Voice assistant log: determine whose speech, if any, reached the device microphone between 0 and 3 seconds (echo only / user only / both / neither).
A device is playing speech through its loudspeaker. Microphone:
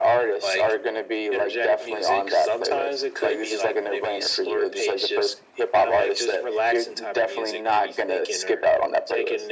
echo only